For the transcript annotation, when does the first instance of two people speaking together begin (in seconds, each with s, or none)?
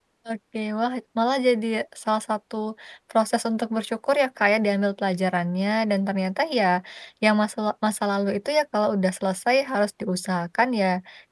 none